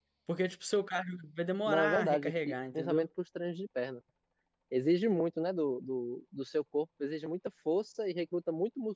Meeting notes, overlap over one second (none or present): present